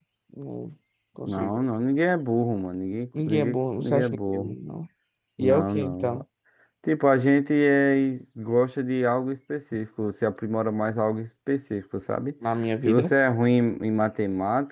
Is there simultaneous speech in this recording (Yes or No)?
Yes